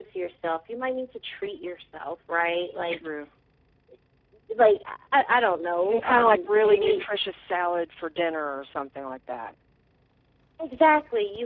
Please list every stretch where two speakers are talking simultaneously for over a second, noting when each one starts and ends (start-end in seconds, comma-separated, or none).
5.8-7.0